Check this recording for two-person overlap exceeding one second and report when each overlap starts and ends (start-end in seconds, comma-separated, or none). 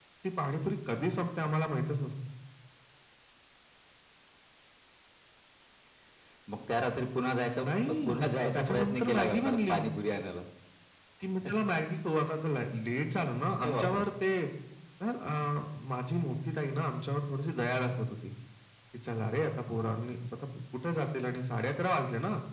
8.5-9.8